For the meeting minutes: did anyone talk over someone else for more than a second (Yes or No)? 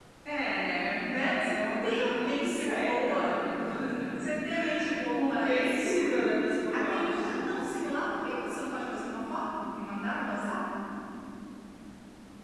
Yes